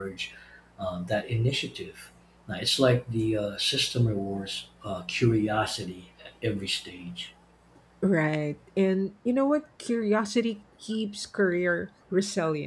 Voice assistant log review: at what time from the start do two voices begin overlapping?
none

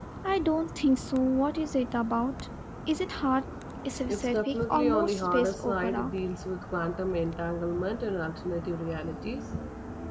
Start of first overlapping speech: 4.1 s

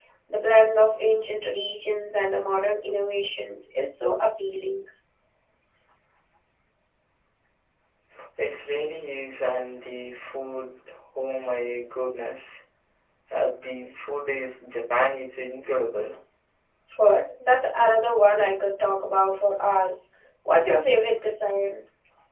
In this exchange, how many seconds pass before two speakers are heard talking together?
none

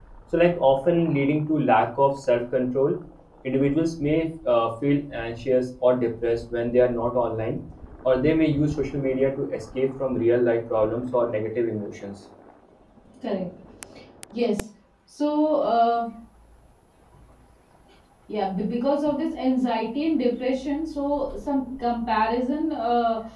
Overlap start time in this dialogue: none

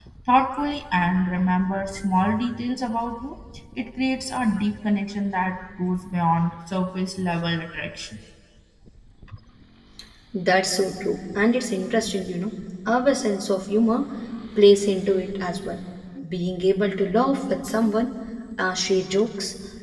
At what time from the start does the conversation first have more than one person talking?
none

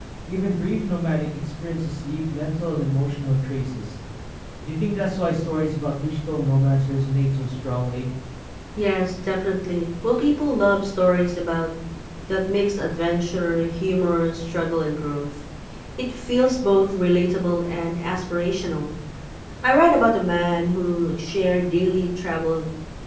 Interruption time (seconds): none

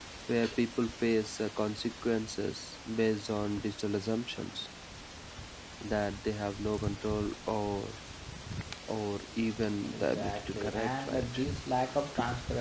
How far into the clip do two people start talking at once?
9.8 s

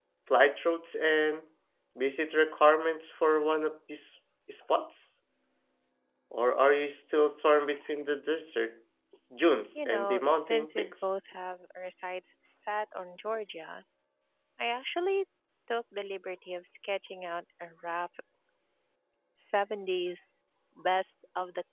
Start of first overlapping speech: 9.8 s

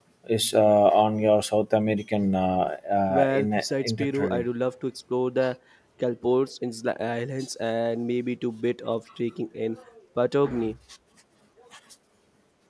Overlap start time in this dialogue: 3.1 s

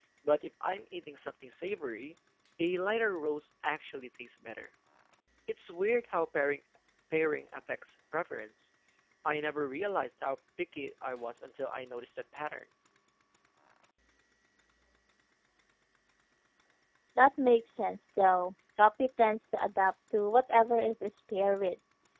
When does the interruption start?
none

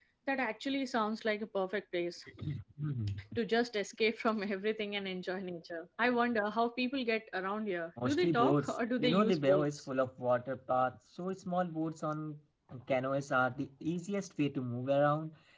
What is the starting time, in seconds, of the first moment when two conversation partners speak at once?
8.0 s

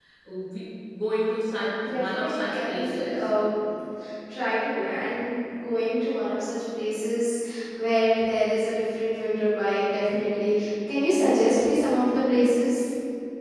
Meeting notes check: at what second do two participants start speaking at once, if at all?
1.8 s

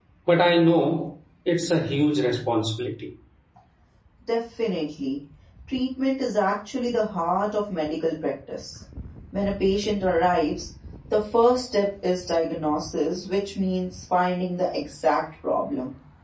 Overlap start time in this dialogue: none

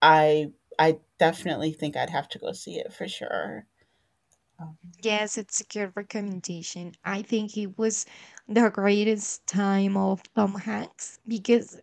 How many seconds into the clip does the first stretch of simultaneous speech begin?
none

